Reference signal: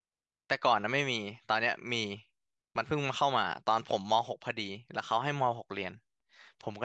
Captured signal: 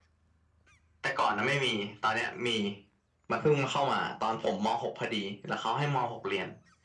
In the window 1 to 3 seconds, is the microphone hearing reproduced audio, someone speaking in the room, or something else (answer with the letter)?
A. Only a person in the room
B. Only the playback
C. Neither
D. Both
B